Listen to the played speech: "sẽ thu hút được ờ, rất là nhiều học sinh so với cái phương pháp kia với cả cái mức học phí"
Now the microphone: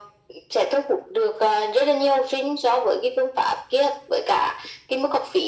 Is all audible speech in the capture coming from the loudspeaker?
Yes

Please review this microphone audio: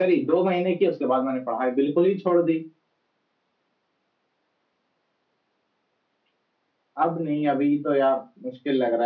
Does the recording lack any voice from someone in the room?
No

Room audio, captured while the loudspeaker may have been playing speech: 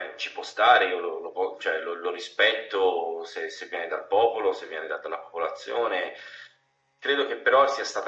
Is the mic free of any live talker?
Yes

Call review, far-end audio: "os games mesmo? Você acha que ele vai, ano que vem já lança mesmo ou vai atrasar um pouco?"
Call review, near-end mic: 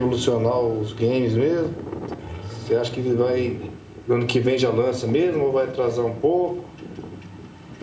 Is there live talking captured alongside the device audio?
No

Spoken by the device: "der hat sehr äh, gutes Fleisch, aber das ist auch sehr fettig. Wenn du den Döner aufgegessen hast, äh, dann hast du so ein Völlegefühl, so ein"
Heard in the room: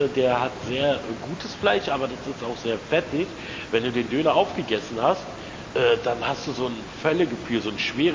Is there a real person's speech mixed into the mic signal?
No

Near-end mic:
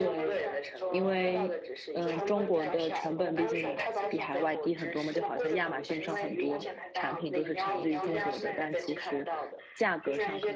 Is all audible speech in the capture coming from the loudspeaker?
No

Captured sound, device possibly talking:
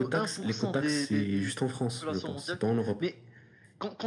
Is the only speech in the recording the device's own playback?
Yes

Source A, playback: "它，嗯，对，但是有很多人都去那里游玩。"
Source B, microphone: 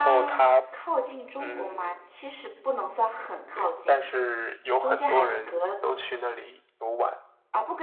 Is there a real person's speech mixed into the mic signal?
Yes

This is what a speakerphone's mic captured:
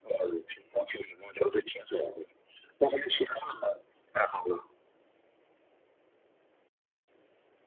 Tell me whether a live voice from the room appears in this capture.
No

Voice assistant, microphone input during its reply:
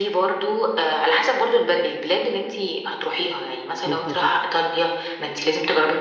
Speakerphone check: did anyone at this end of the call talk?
Yes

